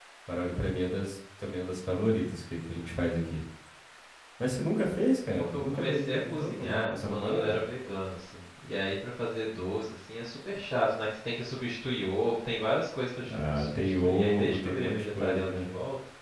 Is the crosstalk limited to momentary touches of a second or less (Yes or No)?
No